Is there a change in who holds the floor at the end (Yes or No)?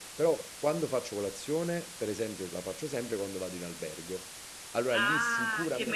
Yes